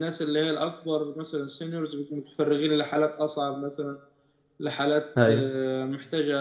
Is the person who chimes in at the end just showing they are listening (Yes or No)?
Yes